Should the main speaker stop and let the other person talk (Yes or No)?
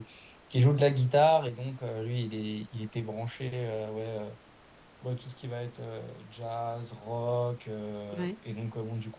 No